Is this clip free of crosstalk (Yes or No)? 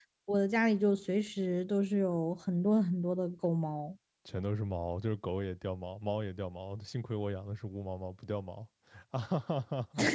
Yes